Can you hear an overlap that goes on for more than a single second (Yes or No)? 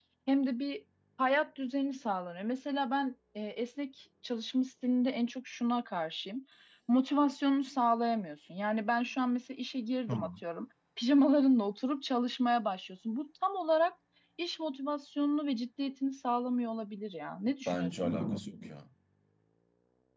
No